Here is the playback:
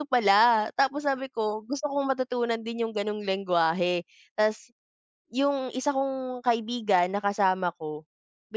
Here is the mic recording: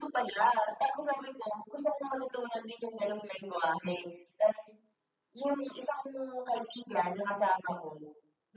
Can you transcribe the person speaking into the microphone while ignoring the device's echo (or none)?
none